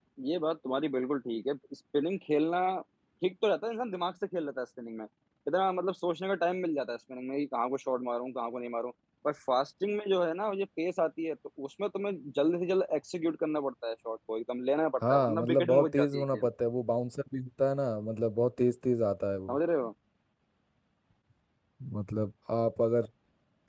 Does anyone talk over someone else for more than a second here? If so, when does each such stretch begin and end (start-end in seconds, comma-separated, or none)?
15.1-16.5